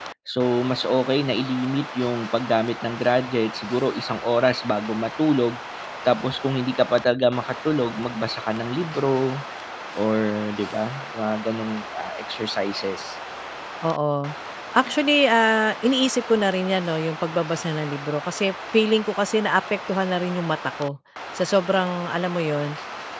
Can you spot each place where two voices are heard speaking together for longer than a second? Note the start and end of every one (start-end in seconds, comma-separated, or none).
none